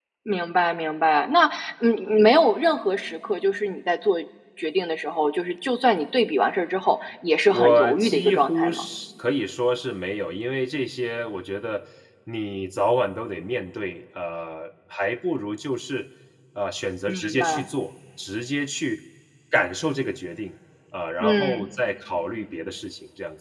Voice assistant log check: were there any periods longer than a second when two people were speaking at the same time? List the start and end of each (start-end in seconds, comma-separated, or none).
7.5-8.8